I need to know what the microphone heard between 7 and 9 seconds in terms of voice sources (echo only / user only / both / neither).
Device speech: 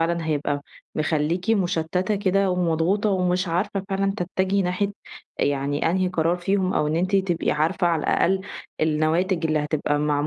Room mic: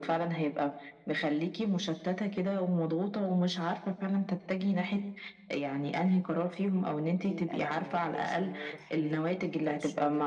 both